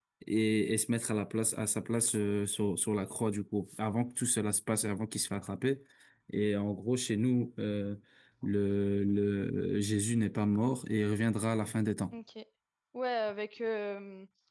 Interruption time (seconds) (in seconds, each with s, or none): none